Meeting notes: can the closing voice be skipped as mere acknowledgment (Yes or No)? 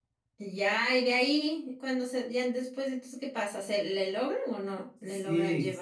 No